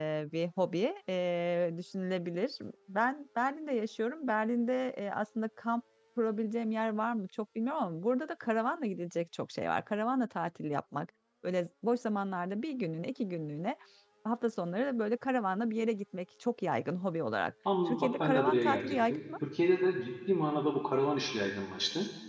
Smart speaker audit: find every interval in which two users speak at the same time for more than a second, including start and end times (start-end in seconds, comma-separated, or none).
17.9-19.2